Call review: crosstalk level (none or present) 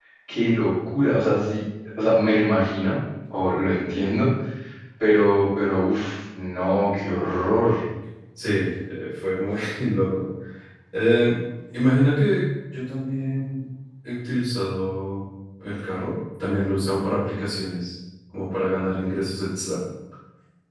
none